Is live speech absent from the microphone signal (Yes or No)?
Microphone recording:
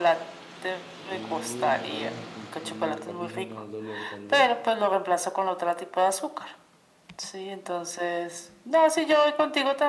No